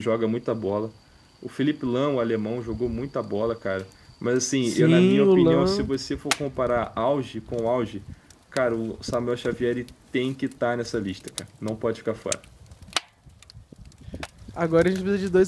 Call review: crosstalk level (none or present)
present